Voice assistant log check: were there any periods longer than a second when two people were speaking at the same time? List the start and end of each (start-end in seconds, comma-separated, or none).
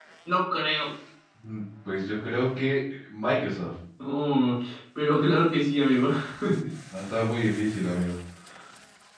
none